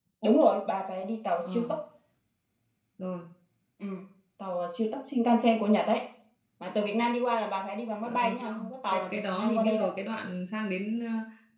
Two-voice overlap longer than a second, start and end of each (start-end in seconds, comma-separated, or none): 8.1-9.9